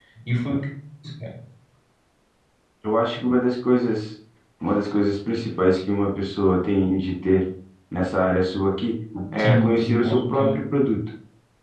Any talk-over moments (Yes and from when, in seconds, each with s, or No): Yes, from 9.4 s